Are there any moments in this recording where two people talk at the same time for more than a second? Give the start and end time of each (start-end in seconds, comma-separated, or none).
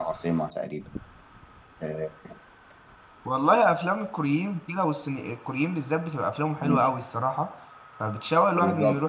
none